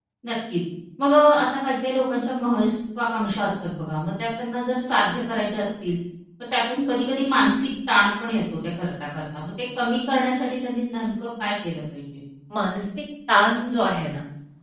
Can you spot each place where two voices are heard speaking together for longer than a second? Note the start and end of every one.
none

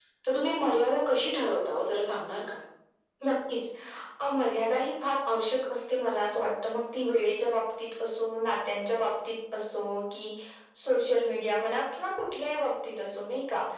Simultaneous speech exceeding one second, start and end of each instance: none

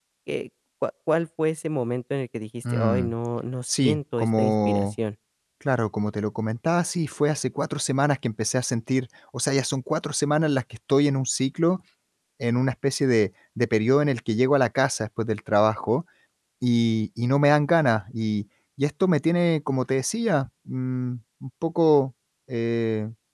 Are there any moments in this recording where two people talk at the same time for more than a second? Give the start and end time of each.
3.7-4.9

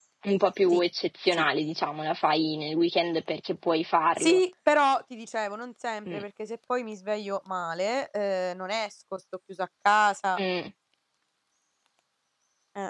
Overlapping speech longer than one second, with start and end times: none

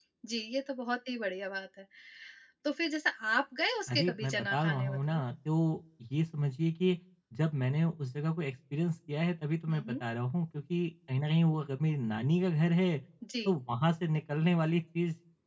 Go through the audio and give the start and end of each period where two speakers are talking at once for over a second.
3.9-5.2

